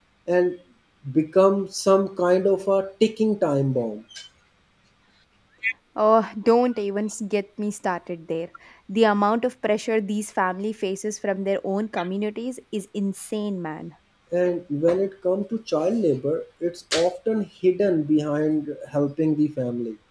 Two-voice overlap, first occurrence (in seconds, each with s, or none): none